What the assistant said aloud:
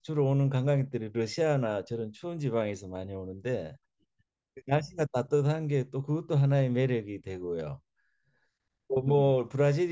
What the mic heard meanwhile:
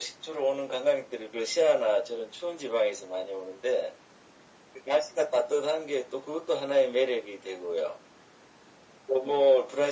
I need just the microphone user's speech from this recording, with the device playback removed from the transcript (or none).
none